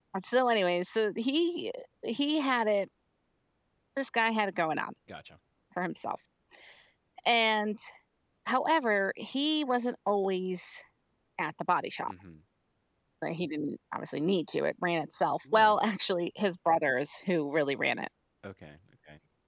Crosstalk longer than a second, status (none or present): none